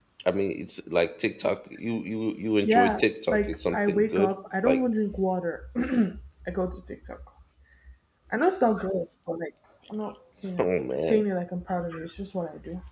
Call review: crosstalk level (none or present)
present